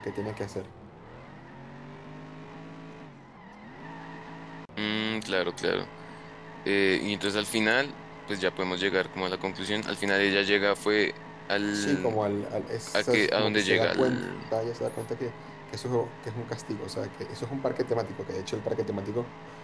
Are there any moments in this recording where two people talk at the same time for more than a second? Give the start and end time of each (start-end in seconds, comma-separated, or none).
12.9-14.2